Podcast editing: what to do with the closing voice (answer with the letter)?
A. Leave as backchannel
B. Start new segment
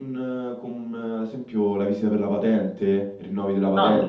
A